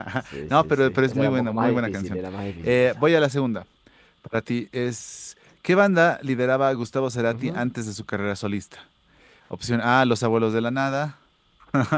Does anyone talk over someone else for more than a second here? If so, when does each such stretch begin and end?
0.5-2.2

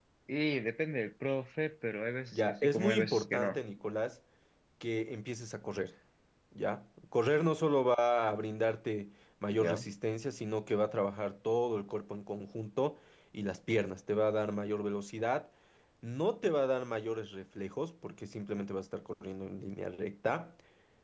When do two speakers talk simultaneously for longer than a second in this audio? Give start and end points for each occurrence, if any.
2.3-3.6

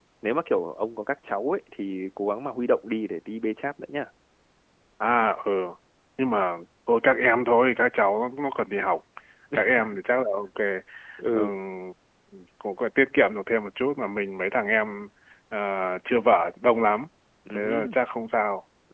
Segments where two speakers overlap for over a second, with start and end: none

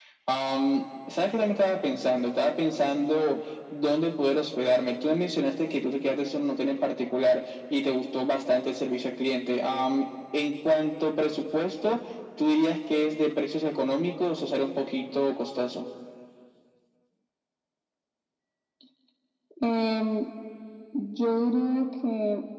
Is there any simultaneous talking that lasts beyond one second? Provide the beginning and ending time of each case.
none

